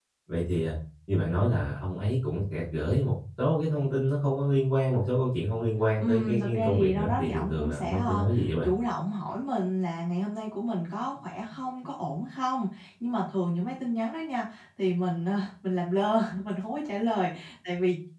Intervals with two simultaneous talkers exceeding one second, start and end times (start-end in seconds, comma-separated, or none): 6.0-8.2